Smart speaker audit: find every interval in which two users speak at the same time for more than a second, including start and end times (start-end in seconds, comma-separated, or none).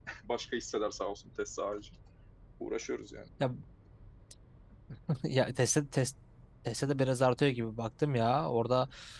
none